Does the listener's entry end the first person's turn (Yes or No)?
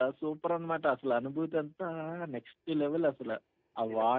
Yes